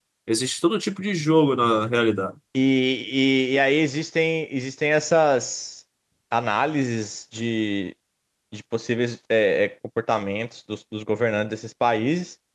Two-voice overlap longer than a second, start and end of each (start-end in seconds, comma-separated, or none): none